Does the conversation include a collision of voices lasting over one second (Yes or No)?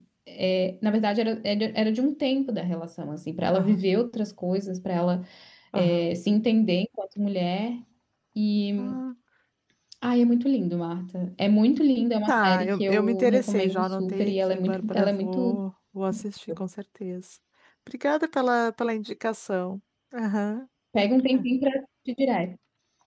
Yes